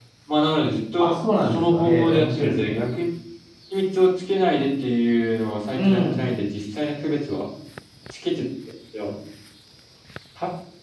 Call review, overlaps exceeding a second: present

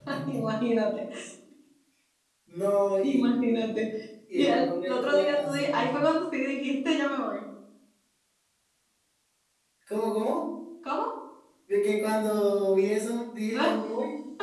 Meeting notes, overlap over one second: present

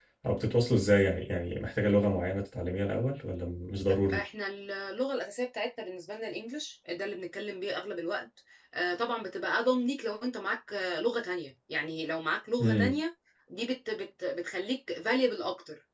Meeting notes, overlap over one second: none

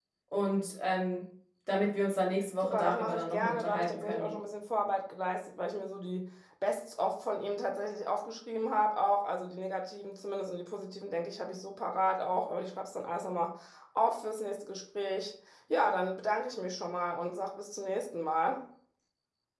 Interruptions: present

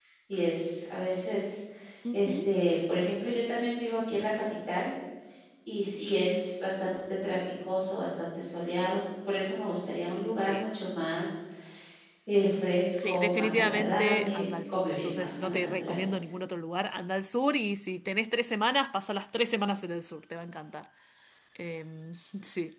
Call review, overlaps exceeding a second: present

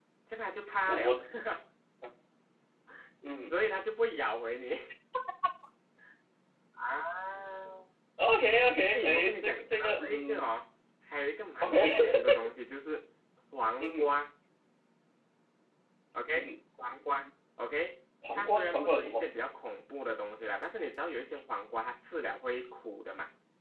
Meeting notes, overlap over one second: present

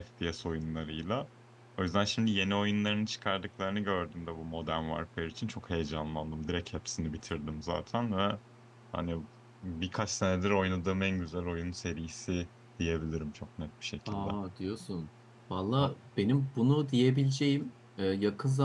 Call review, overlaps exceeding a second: none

